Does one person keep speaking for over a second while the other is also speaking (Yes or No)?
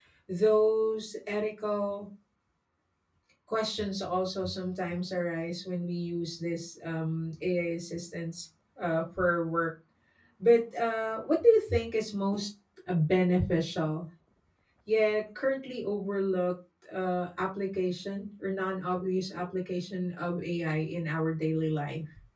No